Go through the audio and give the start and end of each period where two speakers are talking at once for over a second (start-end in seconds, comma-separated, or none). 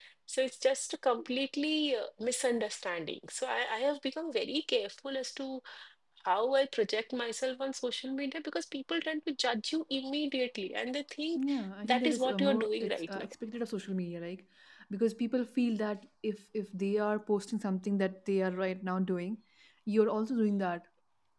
11.8-13.1